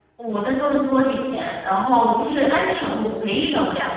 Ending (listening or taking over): listening